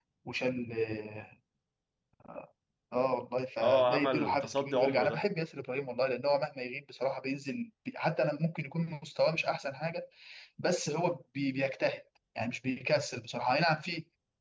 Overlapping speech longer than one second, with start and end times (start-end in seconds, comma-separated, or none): 3.6-5.2